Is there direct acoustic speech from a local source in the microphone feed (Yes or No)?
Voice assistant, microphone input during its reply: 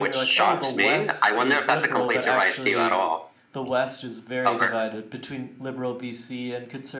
Yes